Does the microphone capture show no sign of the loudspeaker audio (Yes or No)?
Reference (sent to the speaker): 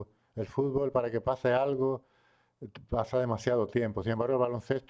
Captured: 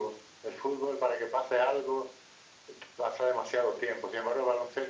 No